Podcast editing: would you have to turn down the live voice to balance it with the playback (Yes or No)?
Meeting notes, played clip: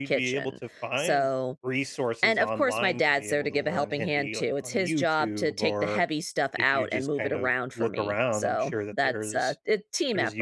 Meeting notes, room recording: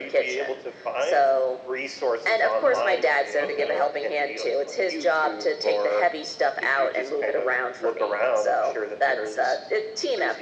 No